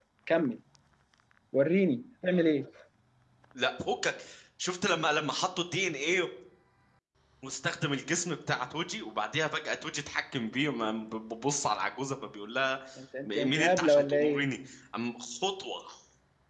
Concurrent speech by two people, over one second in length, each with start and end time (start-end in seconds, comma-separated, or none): 13.2-14.5